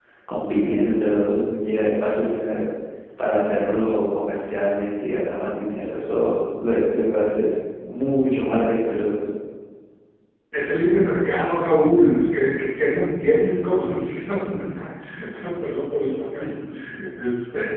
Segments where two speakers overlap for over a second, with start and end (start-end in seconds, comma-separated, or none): none